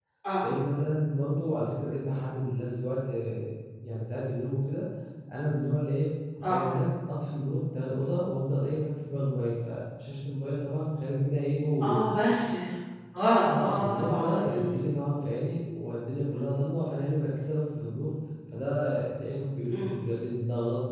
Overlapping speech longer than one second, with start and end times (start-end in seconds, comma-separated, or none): 13.4-14.7